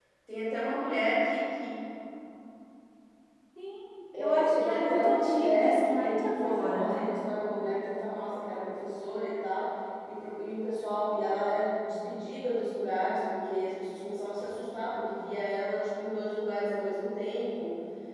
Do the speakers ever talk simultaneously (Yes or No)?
Yes